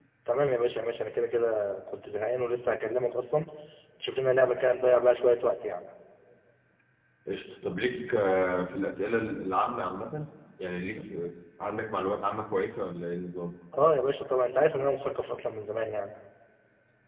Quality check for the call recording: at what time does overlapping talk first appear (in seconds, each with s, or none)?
none